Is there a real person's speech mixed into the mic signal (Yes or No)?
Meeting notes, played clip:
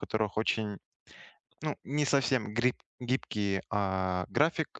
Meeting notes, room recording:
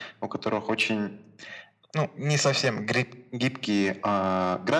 No